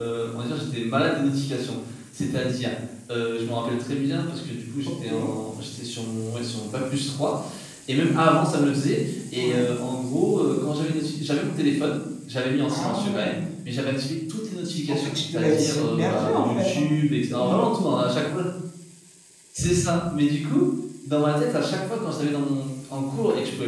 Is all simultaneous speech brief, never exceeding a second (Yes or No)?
No